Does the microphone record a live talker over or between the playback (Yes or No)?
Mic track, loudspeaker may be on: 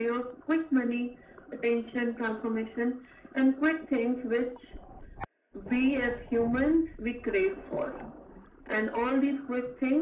No